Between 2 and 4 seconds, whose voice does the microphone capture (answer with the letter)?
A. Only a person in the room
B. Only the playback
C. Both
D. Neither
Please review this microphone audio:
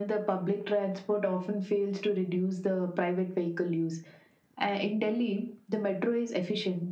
B